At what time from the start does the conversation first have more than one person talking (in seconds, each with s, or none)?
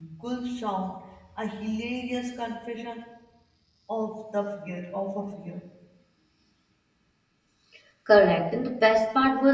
none